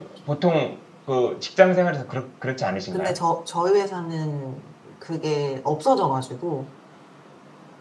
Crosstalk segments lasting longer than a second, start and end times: none

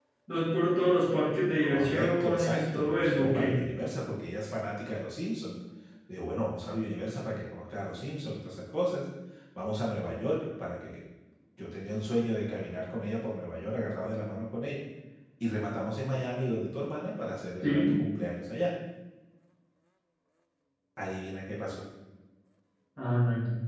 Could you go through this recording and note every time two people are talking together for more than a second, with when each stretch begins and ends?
1.6-3.6

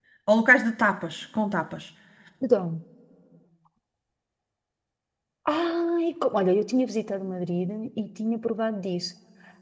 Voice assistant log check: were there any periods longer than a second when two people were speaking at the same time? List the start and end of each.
none

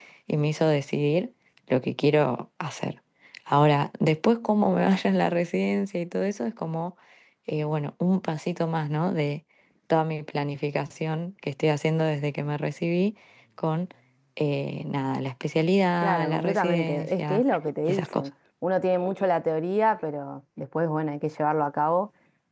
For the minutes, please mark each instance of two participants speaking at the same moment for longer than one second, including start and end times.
16.0-17.4

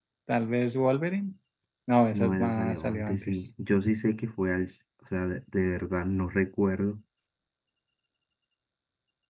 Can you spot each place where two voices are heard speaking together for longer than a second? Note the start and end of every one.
2.1-3.4

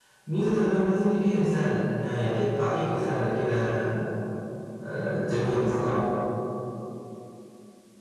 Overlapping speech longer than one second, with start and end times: none

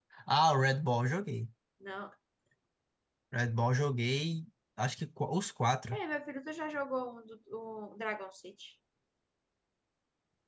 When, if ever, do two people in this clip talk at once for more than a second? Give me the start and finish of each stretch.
none

